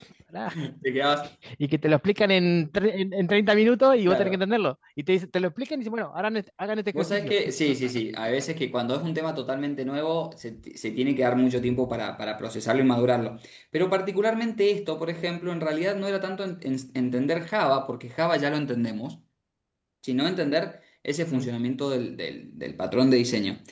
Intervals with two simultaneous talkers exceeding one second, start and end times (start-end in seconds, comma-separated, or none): none